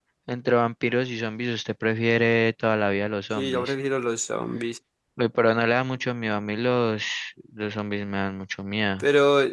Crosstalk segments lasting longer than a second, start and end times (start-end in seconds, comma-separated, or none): none